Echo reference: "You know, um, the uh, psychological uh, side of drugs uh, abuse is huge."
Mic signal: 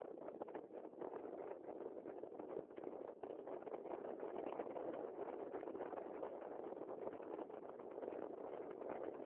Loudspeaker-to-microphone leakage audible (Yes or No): No